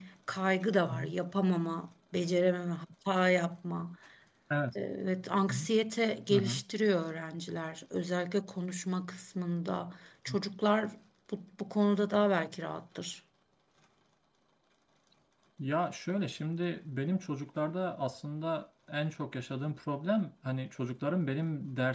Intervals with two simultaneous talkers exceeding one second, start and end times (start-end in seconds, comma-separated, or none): none